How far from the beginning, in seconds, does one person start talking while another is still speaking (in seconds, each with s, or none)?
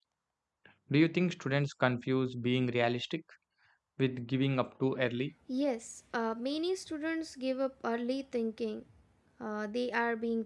none